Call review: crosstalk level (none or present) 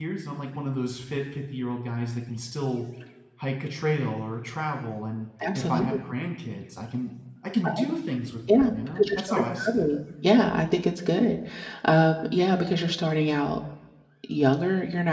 present